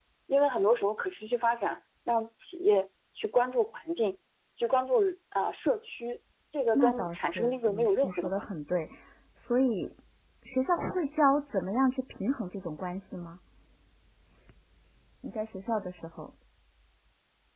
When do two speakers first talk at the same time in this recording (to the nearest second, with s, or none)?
7 s